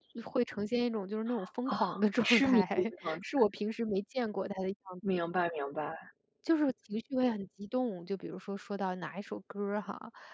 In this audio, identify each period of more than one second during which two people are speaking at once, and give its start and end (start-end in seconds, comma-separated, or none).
2.2-3.5